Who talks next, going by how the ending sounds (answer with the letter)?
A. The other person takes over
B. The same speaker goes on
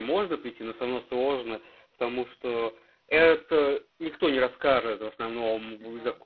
B